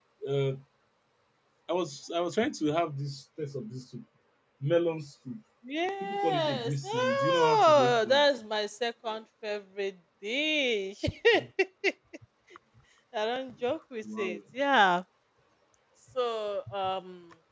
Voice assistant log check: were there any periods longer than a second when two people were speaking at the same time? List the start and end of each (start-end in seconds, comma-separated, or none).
6.0-8.2